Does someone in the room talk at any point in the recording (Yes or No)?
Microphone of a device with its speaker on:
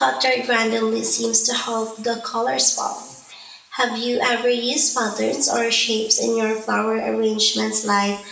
Yes